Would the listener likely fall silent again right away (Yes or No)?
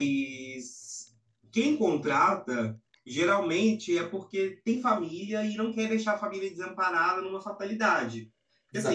No